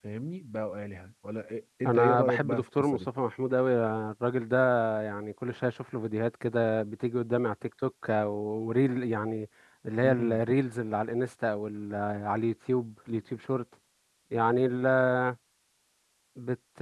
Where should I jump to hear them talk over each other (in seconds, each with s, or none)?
1.9 s